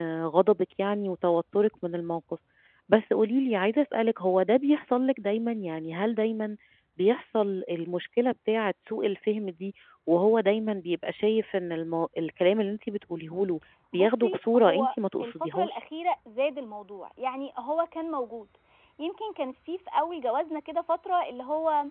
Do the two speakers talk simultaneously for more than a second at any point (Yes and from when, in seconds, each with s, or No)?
Yes, from 13.9 s